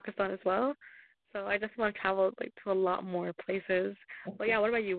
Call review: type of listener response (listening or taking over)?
listening